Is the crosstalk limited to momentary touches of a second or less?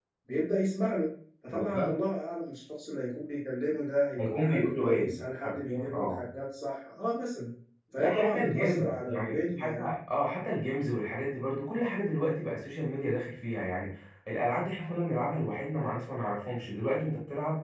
No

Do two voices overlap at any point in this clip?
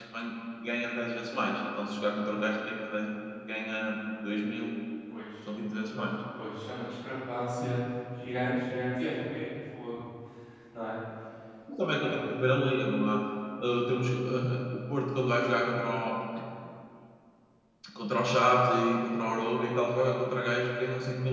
No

